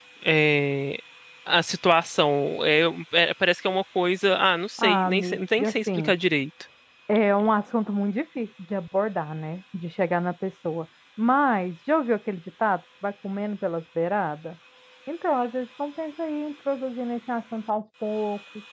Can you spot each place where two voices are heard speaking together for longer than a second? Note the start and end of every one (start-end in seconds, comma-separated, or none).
4.8-6.1